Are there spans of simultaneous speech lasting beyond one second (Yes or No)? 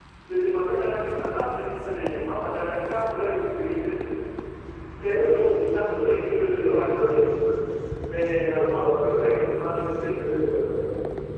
Yes